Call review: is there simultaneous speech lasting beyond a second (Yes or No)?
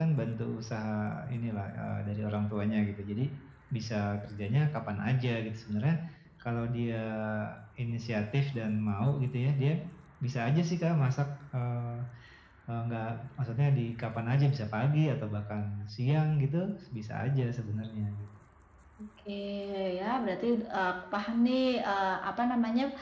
No